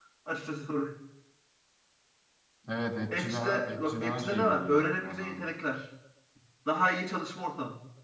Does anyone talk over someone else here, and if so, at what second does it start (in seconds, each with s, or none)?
3.2 s